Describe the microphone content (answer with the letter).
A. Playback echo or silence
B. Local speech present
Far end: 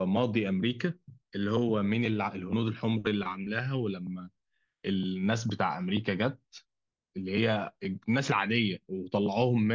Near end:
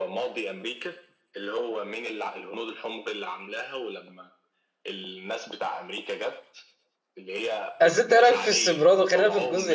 B